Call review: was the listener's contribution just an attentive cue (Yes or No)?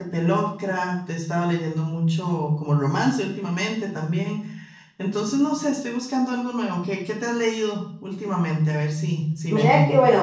No